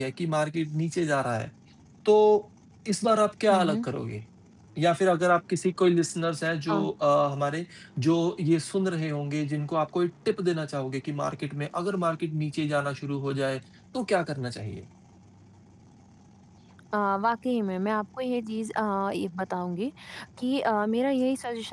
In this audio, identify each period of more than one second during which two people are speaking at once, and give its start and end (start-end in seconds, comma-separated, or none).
none